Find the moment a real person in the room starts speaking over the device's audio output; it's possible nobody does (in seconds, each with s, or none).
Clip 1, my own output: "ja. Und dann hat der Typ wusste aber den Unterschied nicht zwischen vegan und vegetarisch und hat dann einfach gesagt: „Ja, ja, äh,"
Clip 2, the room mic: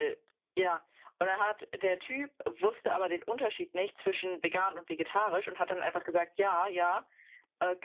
none